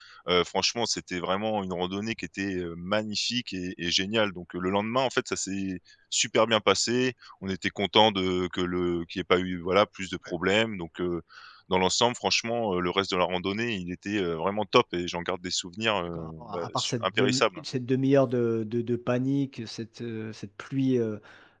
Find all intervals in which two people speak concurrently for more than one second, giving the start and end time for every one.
16.1-17.6

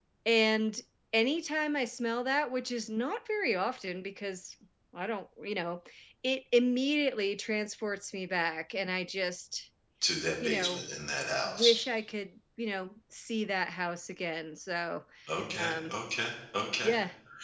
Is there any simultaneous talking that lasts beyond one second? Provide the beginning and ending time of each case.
none

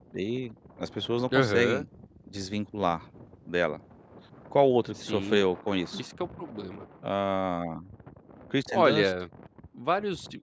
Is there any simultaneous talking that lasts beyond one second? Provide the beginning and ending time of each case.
none

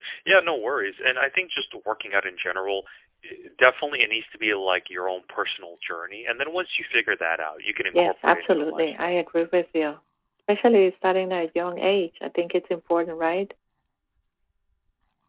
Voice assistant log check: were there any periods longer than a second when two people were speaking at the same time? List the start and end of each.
7.9-9.2

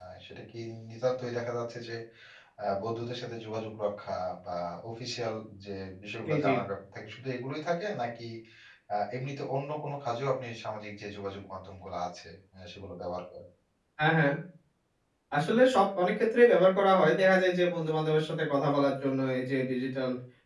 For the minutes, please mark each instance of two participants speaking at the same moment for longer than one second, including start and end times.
none

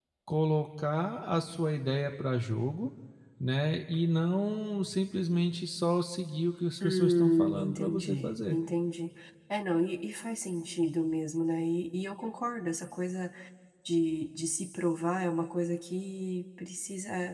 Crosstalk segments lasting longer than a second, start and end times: 6.8-8.6

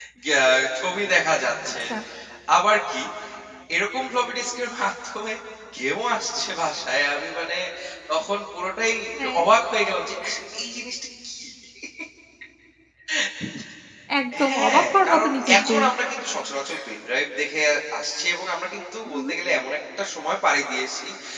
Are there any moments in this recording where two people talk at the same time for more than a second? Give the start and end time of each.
14.5-15.7

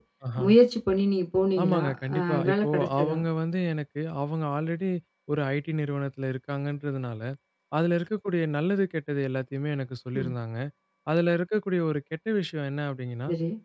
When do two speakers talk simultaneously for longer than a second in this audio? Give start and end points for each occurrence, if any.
1.6-3.2

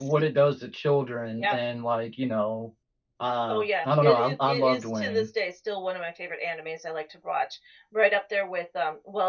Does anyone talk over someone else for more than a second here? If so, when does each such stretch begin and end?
3.5-5.3

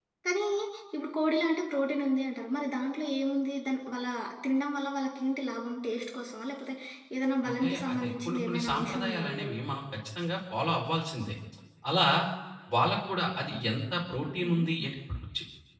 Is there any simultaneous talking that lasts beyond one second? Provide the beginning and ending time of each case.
7.5-9.5

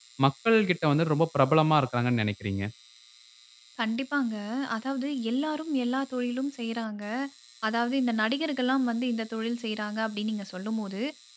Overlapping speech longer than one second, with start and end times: none

